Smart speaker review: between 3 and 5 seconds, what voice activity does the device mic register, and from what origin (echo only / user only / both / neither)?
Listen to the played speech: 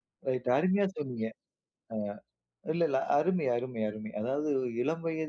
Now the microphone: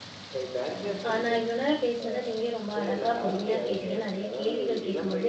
both